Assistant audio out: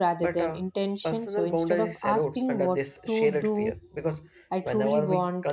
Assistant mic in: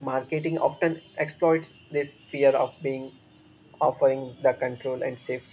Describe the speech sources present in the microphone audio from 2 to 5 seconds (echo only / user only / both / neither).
user only